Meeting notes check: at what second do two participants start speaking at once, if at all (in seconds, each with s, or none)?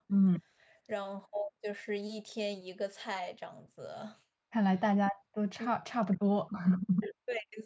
none